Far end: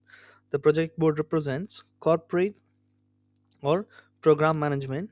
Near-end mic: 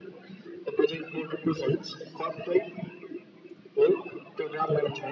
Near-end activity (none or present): none